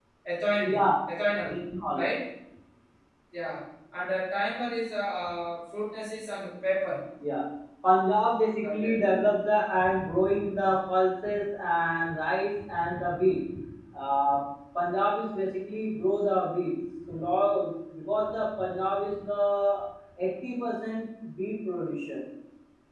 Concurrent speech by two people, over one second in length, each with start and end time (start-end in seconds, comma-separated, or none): none